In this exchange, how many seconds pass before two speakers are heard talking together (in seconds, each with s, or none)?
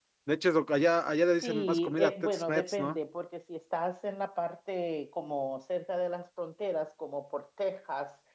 1.4 s